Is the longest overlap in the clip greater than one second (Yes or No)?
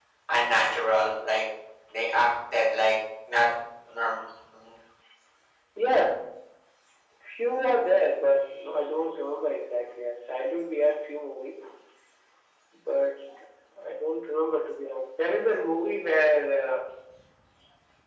No